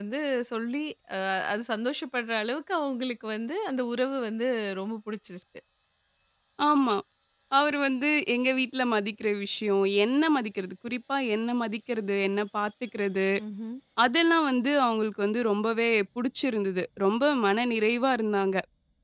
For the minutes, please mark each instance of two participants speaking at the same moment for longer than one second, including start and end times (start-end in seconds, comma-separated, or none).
none